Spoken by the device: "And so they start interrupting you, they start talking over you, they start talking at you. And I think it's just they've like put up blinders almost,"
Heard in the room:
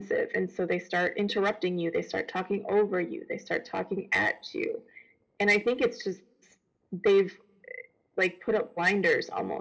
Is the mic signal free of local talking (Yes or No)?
Yes